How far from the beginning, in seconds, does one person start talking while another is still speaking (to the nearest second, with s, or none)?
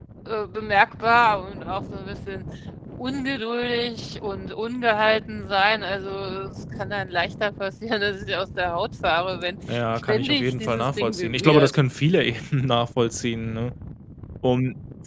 10 s